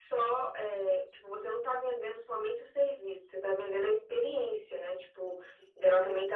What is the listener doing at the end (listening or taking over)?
listening